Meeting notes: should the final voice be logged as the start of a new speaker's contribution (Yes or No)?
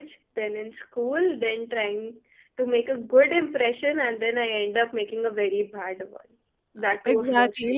Yes